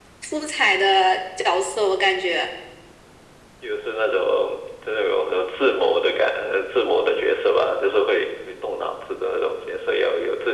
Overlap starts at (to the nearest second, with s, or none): none